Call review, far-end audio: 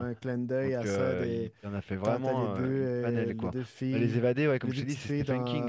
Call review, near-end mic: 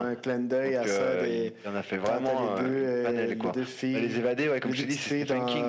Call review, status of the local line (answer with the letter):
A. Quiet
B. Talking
A